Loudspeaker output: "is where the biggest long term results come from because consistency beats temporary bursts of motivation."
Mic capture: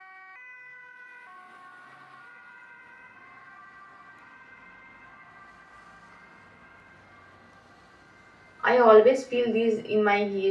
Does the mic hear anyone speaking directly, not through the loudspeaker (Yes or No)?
Yes